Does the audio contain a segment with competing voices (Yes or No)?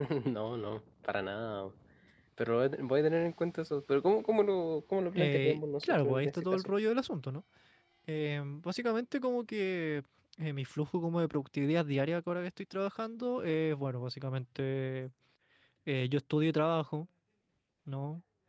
Yes